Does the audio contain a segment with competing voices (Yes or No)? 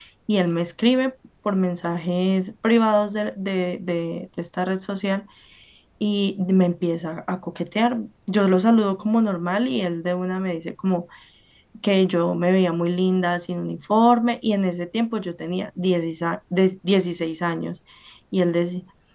No